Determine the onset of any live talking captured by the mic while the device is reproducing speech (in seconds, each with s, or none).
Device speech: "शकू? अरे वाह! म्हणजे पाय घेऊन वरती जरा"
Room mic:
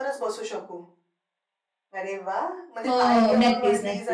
2.9 s